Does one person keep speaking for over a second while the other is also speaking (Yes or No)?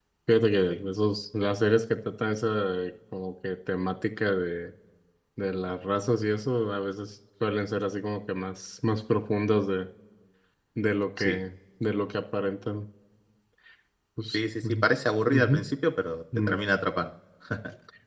No